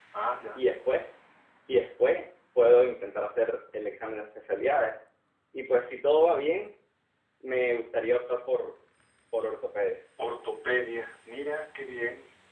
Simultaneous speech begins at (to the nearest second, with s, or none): none